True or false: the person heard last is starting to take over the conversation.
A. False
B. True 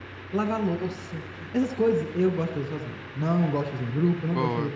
A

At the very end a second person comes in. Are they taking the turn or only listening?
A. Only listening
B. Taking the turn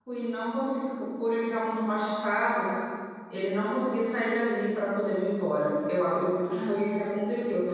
A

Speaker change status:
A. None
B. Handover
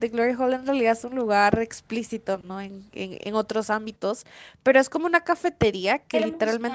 A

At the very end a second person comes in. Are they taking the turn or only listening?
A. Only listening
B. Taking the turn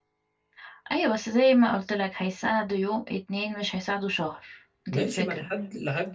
B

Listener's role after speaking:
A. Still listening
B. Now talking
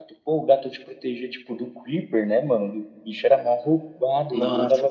B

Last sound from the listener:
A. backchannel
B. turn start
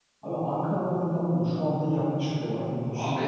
A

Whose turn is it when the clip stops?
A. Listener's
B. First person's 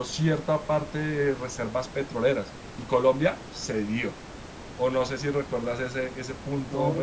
A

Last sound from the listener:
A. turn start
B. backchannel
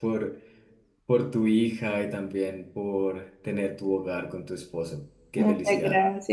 A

